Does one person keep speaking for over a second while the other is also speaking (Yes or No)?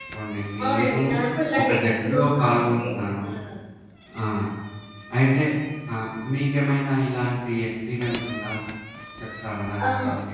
Yes